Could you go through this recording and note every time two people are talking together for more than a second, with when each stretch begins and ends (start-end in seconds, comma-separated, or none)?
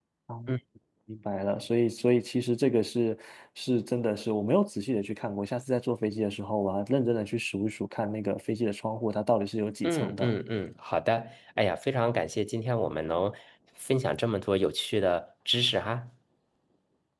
none